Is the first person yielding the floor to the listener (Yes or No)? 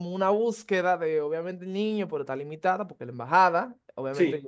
No